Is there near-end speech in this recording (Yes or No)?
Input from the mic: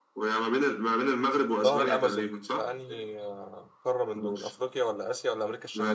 Yes